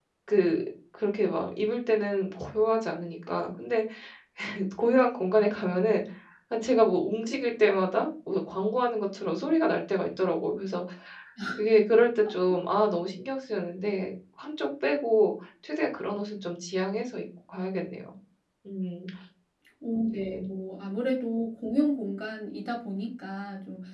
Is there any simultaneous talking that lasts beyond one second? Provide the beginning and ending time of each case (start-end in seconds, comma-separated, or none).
none